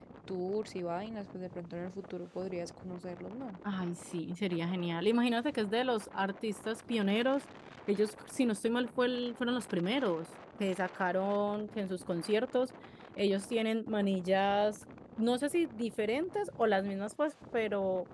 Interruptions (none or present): none